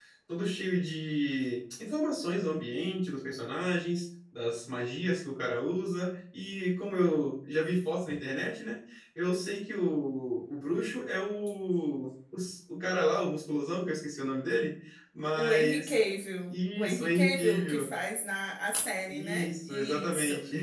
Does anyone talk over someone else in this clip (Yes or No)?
Yes